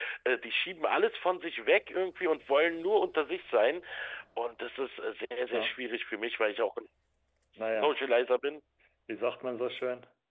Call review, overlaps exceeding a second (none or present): none